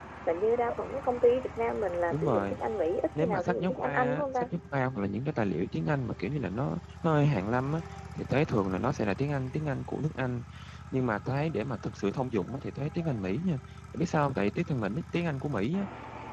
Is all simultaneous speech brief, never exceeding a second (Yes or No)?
No